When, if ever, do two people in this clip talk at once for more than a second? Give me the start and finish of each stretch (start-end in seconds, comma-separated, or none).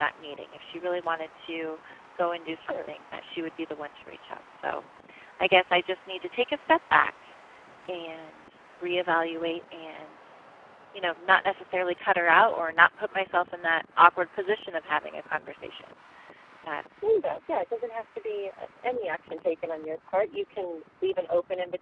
none